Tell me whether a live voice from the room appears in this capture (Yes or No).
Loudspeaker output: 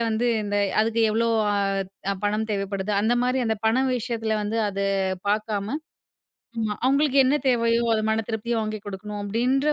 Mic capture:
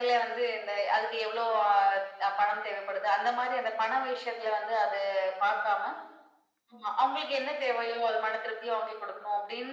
No